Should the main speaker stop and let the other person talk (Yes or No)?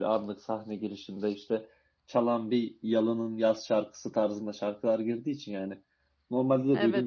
No